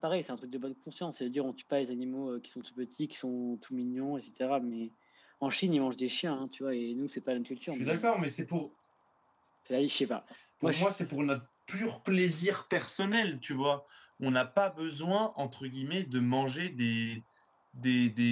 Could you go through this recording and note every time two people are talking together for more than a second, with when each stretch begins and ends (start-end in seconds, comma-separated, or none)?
none